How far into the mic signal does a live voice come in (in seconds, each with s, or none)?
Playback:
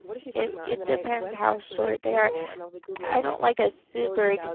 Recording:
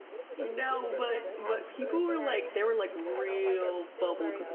0.4 s